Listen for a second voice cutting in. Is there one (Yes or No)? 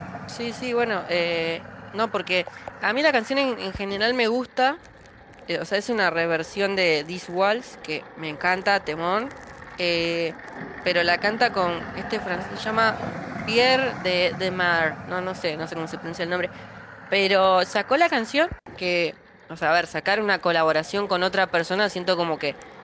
No